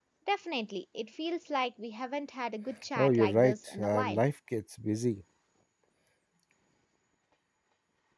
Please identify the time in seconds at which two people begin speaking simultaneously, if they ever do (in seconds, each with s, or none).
3.0 s